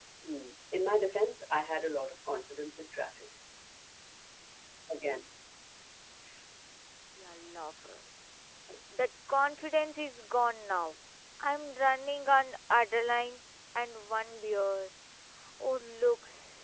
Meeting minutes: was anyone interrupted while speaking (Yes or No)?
No